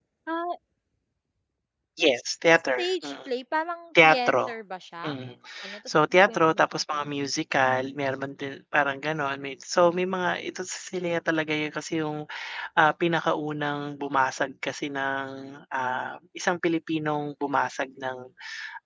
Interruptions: present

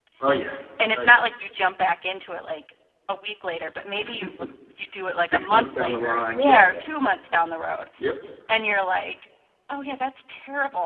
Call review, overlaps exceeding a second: present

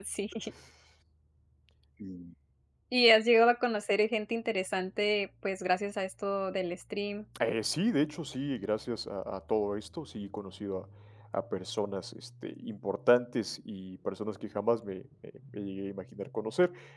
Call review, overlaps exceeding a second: none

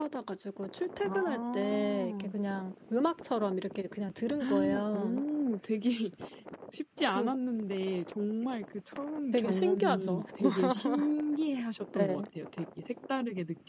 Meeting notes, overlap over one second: present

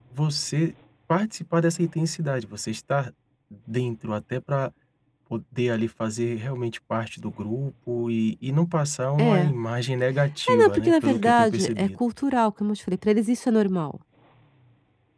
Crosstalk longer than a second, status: present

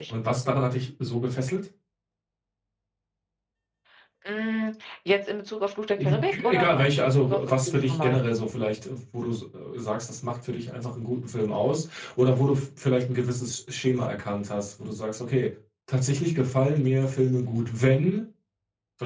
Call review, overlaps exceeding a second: present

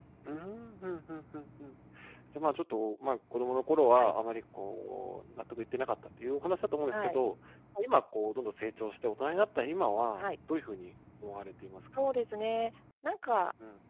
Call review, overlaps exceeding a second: none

